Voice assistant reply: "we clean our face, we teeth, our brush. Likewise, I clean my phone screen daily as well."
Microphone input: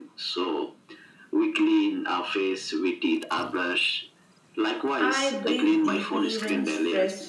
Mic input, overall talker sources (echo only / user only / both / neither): both